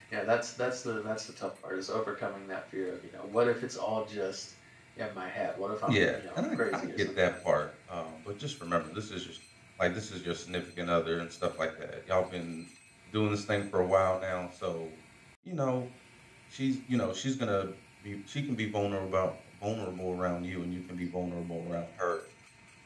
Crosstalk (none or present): present